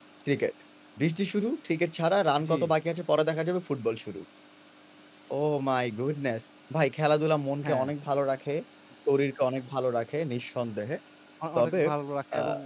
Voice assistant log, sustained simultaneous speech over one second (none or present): none